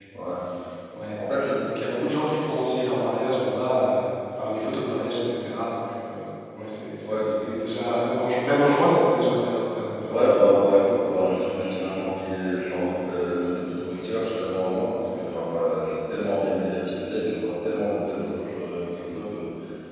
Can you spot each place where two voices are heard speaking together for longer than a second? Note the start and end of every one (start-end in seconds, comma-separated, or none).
none